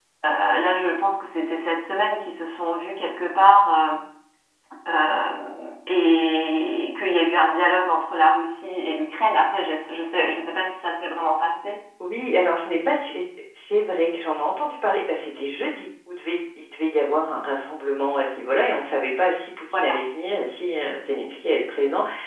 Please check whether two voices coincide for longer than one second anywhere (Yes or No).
No